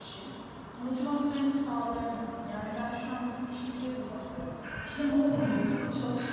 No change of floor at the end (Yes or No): Yes